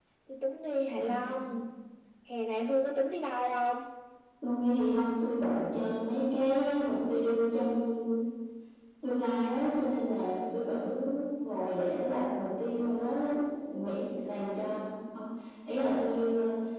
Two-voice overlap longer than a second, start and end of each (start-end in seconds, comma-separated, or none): none